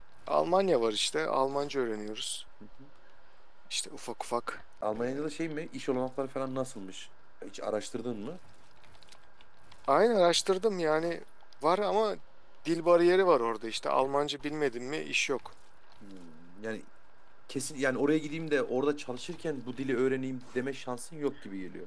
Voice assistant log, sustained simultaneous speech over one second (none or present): none